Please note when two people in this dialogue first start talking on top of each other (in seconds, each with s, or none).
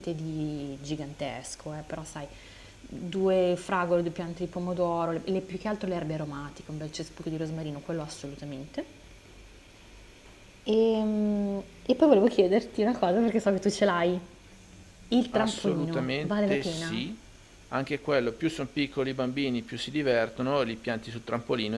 15.3 s